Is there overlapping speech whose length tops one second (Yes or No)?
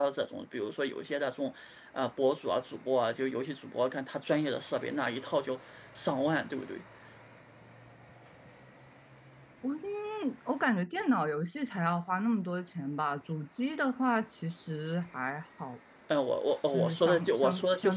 Yes